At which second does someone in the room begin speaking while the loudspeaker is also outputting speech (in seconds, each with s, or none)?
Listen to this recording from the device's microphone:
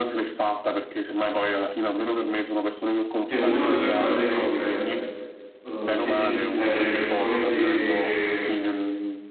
3.2 s